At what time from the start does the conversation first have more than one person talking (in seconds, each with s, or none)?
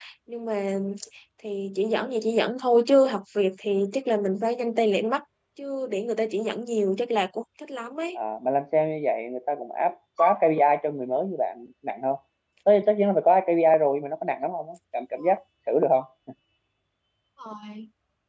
none